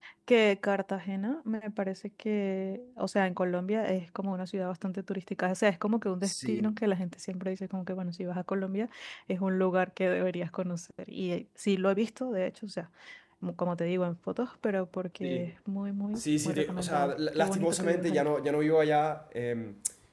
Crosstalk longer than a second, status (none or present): present